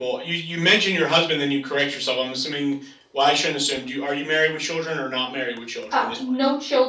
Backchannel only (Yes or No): No